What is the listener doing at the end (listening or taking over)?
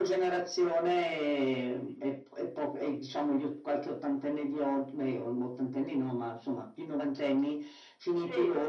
listening